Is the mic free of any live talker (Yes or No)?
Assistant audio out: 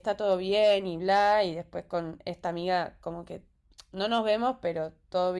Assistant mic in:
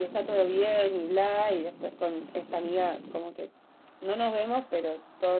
Yes